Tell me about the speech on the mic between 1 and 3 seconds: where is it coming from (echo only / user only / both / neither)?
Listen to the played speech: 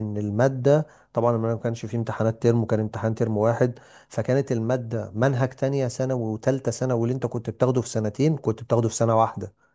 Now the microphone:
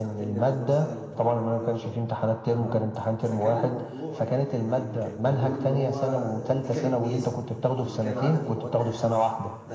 both